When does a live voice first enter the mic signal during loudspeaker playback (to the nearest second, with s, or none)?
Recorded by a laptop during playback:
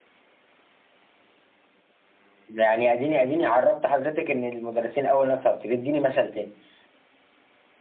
none